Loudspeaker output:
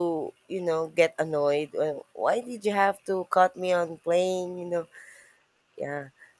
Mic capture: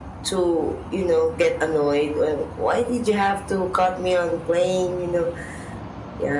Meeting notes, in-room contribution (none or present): none